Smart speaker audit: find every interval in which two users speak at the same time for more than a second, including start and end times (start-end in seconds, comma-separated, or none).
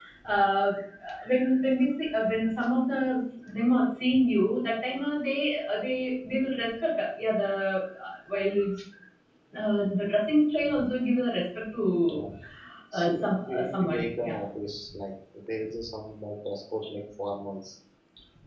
12.9-14.3